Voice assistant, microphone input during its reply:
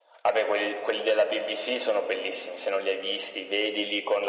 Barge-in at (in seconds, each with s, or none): none